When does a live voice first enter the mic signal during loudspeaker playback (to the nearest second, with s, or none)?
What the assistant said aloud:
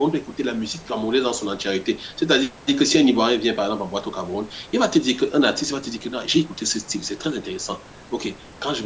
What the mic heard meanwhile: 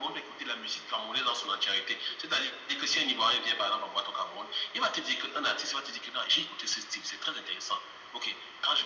none